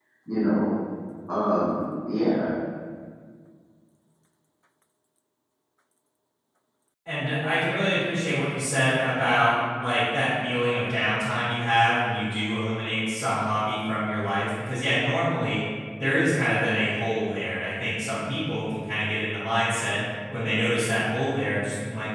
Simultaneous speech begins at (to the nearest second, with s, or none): none